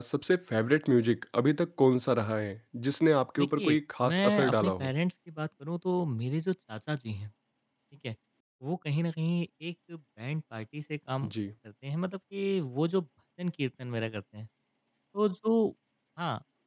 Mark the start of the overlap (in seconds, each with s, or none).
3.4 s